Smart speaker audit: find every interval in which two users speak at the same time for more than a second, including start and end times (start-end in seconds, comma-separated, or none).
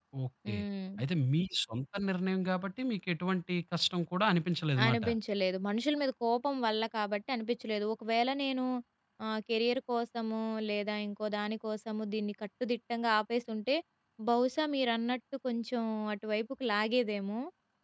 none